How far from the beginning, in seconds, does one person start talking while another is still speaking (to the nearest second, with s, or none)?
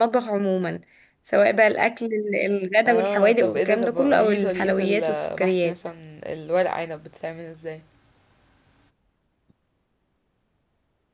3 s